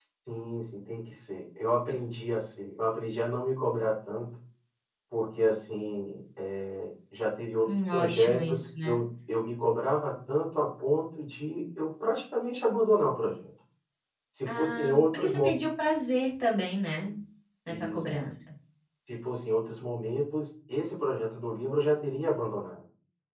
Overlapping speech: Yes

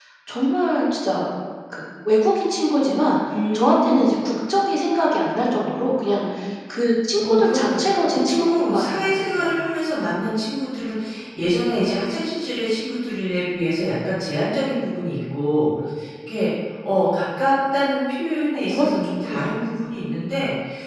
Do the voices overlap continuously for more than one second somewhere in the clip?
Yes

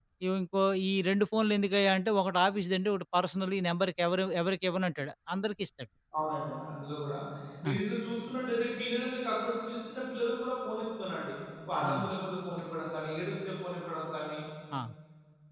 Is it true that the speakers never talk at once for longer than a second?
Yes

